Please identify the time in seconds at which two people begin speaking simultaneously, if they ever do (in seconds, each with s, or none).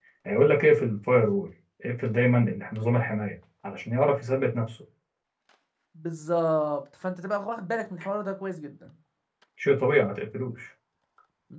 none